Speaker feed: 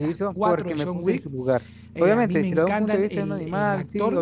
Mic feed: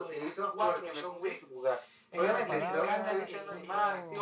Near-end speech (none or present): present